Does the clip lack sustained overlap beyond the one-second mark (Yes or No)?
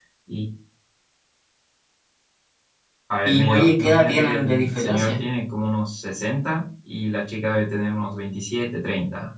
No